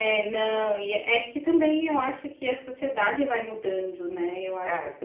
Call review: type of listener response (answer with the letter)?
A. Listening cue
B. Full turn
A